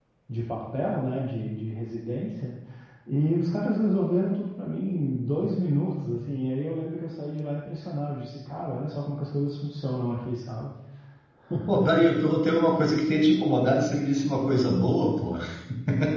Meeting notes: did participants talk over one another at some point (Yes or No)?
No